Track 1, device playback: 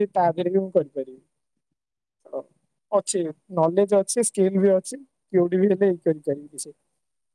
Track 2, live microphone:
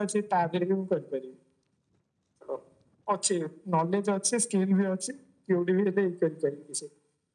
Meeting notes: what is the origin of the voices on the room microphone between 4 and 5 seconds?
echo only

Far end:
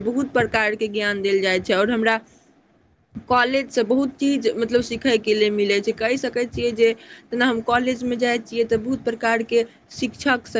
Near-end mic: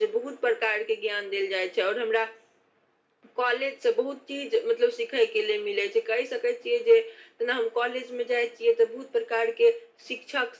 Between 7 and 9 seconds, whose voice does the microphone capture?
echo only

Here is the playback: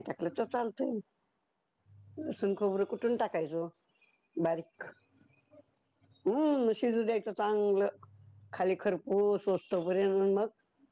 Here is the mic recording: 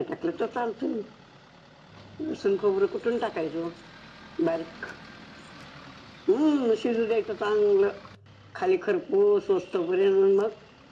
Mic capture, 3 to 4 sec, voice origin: echo only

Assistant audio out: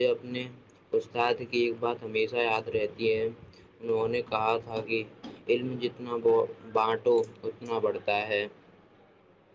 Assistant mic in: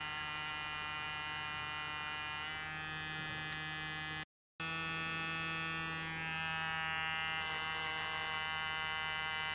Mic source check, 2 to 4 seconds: neither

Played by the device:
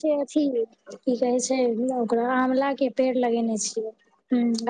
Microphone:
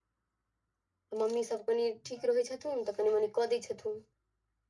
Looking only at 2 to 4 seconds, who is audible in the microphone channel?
user only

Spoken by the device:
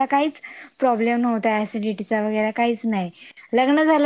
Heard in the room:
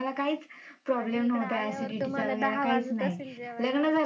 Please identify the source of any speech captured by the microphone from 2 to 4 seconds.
both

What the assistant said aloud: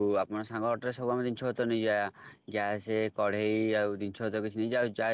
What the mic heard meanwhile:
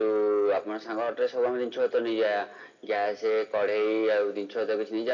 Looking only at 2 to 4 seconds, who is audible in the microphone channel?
echo only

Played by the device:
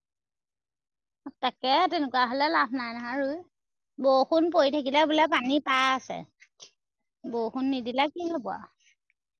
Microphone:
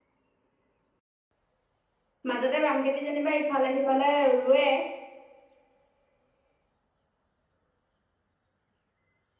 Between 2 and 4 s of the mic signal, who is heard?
user only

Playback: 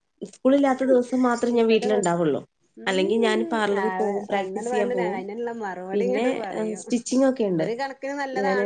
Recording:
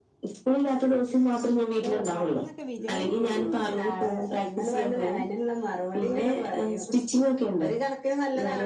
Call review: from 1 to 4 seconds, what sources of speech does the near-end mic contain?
both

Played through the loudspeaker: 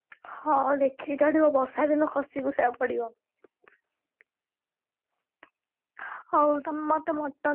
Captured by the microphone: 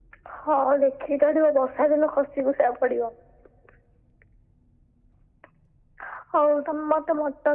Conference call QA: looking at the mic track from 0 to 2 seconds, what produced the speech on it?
echo only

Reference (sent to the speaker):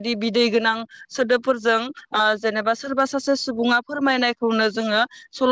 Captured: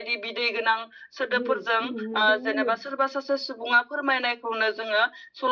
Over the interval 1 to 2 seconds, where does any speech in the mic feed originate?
both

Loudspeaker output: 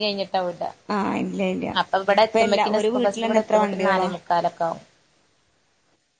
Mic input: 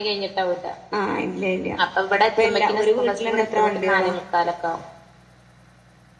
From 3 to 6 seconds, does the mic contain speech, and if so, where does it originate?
echo only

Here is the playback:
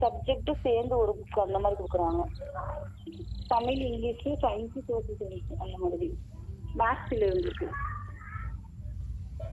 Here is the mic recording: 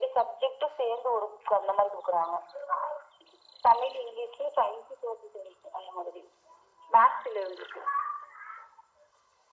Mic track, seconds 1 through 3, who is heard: echo only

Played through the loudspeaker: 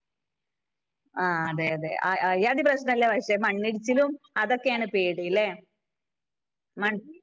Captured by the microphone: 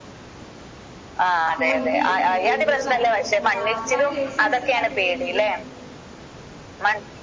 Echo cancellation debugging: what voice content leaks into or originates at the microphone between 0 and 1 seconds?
neither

